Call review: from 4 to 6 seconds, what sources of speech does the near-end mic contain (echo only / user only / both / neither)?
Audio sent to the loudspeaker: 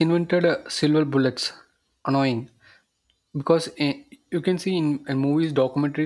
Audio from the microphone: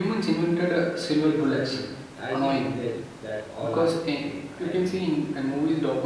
both